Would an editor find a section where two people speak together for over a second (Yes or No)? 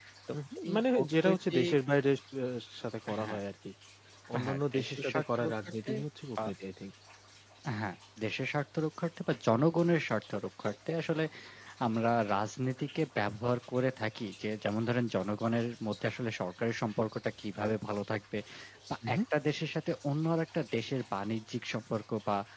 Yes